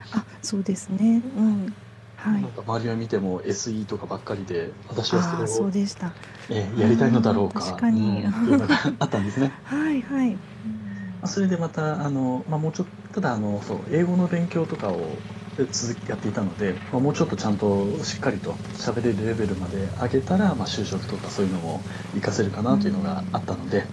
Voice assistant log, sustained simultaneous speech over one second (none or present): present